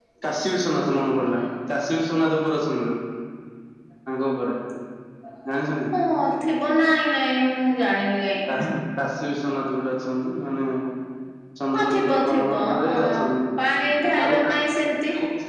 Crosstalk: present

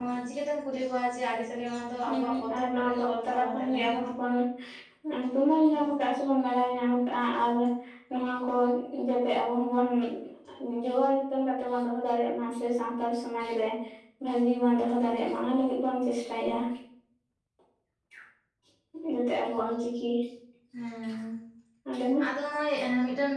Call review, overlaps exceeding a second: present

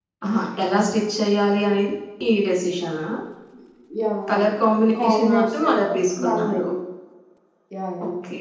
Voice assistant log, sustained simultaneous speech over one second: present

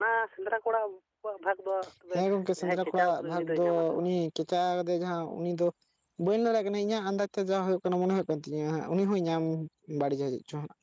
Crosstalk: present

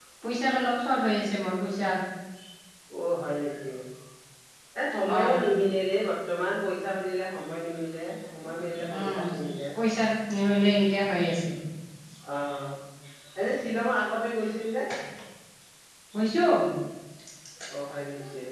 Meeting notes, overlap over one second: none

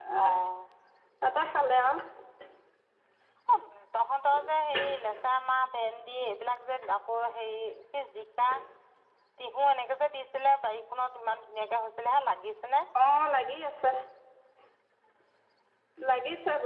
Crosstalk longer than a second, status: none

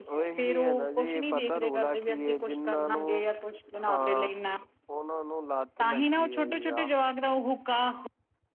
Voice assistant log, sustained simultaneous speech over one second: present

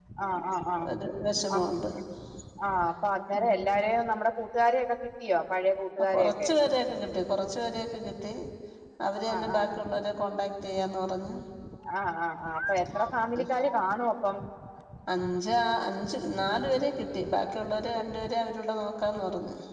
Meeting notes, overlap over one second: none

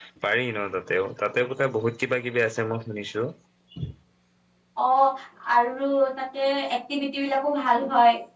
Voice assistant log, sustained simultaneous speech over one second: none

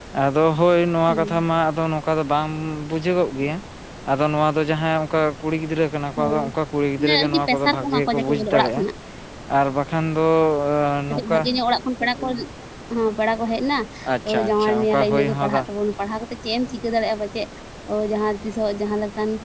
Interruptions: present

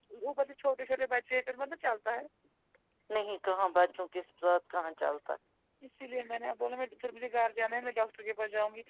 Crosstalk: none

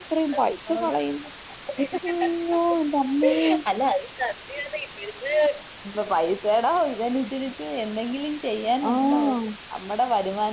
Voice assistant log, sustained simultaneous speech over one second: none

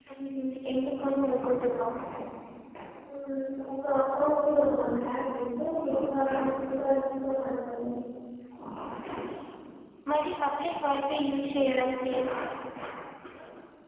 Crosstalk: none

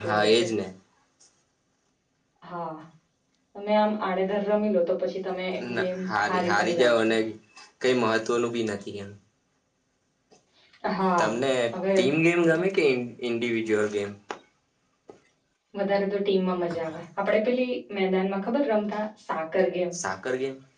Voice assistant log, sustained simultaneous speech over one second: present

